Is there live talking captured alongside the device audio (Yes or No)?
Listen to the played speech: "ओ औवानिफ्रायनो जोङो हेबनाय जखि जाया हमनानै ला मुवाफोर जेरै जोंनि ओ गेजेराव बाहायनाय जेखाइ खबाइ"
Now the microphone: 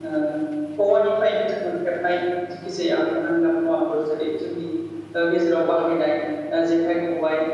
No